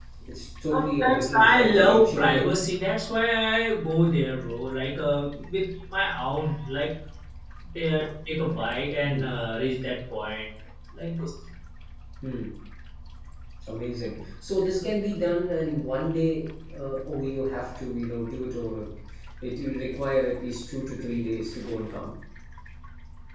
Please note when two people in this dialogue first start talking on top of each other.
0.7 s

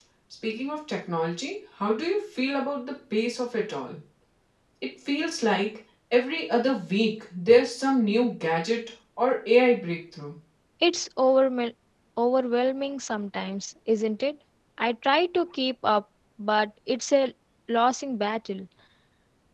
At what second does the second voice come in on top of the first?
none

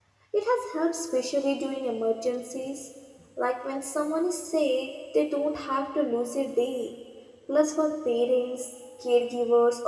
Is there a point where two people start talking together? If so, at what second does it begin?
none

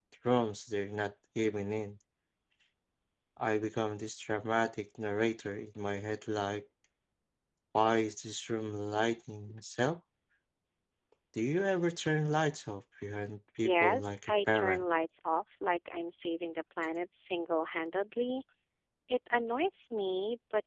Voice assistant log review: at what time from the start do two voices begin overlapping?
13.6 s

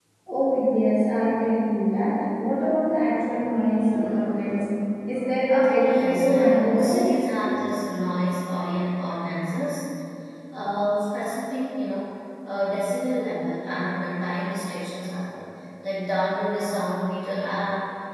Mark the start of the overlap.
5.8 s

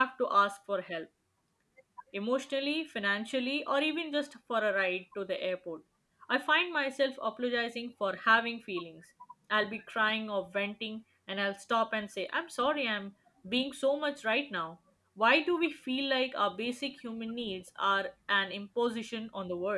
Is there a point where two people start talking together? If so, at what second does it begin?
none

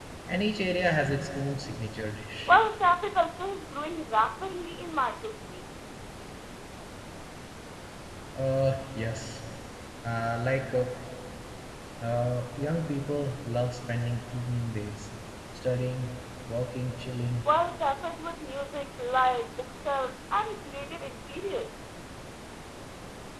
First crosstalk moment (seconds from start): none

